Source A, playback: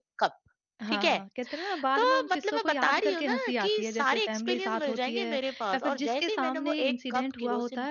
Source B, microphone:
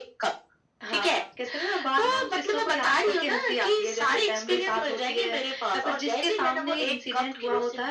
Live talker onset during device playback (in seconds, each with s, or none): none